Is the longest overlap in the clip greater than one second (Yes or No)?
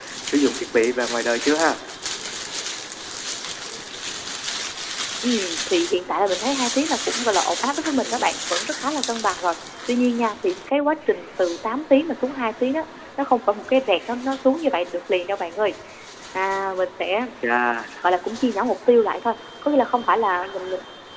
No